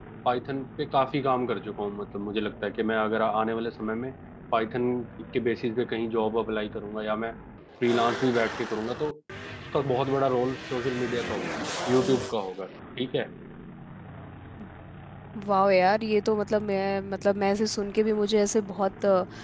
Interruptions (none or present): none